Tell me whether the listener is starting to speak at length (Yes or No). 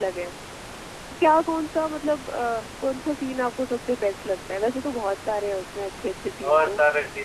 Yes